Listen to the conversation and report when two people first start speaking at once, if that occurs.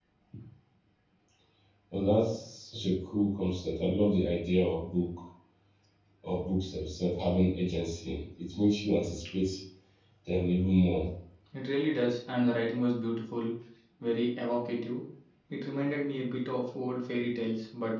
none

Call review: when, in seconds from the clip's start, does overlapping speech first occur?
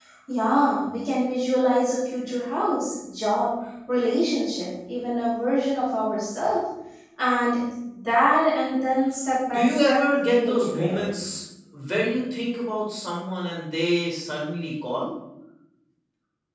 9.5 s

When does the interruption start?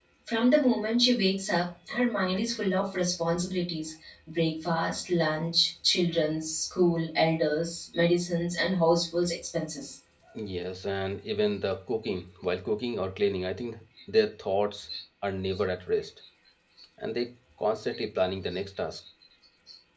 none

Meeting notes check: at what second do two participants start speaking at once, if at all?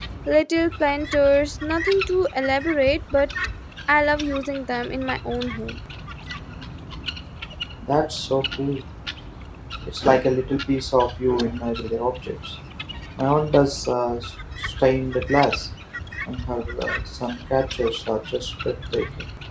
none

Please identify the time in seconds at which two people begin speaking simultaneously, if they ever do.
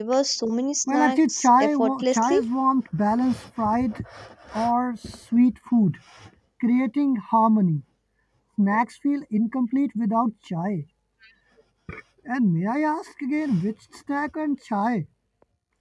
0.9 s

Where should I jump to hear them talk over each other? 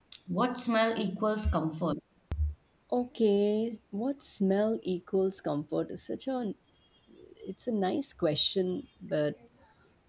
none

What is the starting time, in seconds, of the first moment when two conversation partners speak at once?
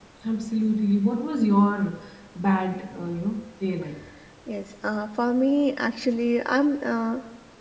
none

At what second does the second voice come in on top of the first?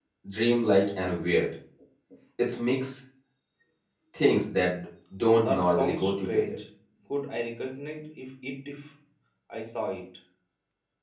5.3 s

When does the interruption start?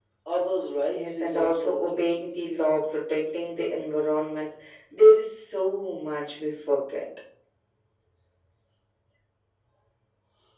0.9 s

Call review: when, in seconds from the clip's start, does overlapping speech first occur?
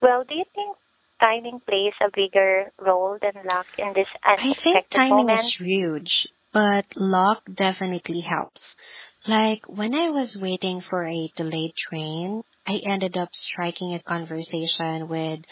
4.4 s

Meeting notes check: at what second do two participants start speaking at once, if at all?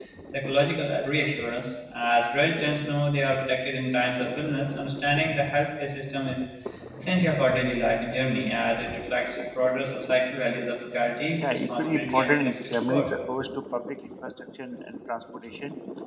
11.4 s

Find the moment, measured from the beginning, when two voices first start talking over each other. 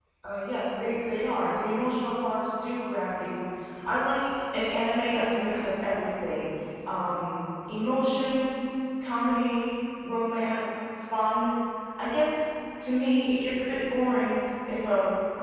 none

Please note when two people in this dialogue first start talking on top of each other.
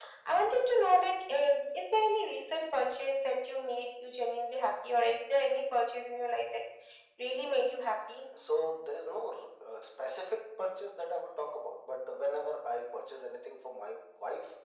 none

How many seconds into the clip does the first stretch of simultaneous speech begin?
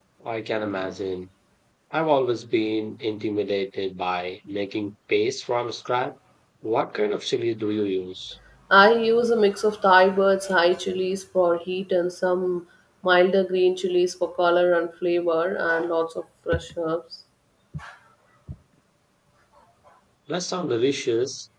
none

